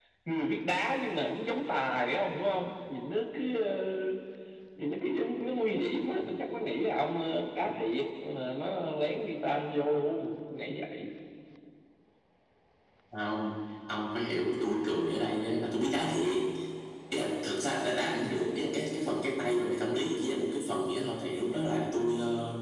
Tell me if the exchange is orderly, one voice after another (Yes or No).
Yes